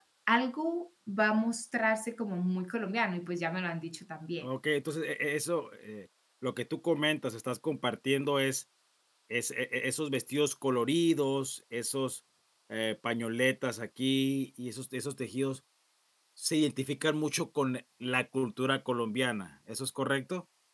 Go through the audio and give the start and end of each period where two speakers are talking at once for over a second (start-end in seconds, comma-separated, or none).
none